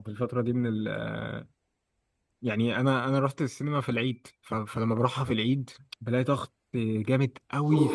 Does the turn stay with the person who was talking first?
No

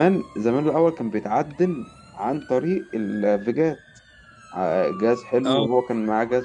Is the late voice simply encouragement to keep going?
Yes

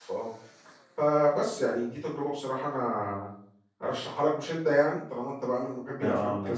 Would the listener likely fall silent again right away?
No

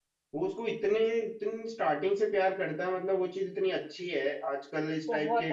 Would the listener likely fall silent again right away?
Yes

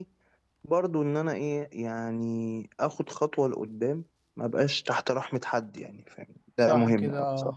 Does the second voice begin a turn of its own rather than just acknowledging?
Yes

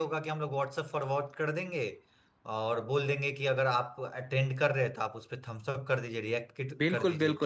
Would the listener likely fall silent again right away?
No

